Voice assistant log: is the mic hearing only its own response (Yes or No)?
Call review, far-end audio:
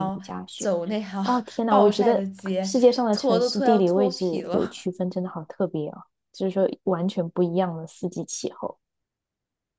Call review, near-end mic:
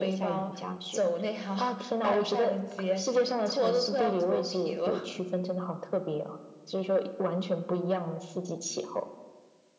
Yes